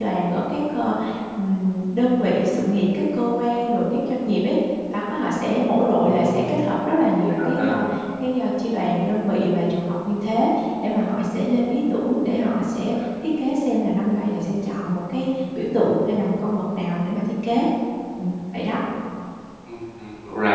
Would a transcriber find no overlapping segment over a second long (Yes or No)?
Yes